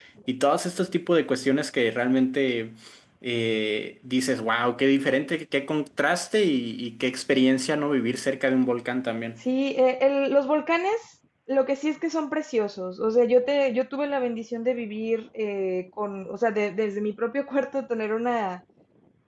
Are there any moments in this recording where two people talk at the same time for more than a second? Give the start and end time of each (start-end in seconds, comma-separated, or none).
none